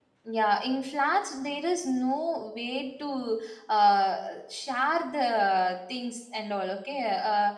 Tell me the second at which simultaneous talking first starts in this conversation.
none

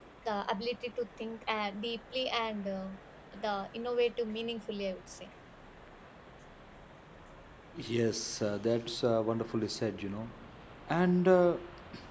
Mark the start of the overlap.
none

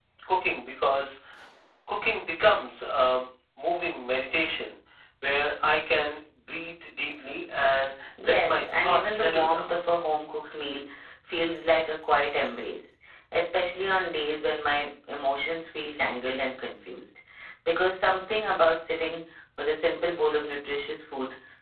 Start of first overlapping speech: 8.2 s

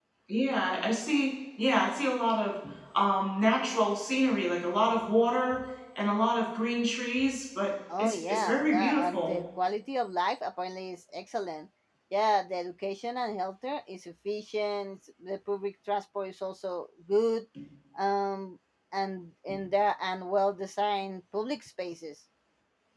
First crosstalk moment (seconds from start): 7.9 s

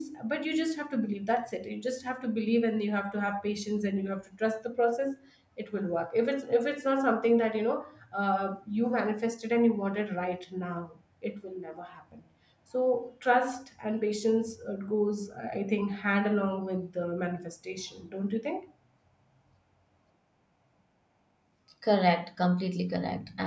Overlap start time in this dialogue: none

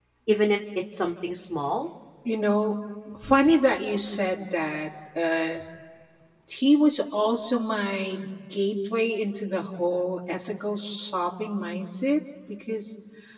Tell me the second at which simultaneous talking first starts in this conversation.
none

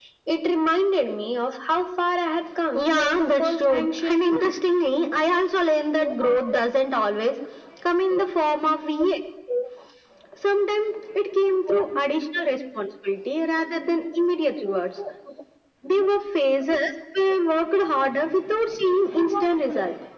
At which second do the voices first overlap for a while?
2.7 s

